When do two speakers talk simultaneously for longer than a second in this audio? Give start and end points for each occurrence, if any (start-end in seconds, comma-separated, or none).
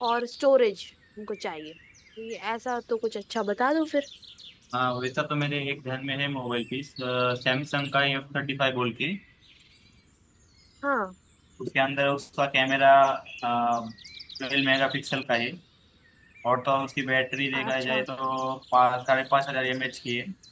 none